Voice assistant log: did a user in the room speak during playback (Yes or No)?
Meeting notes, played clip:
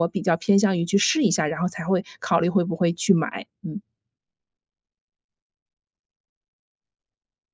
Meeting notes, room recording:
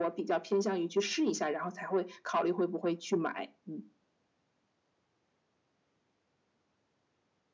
No